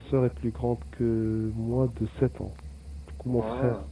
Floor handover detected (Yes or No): No